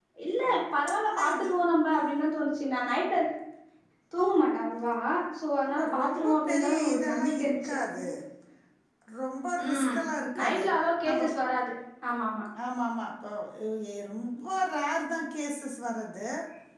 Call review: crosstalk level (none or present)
present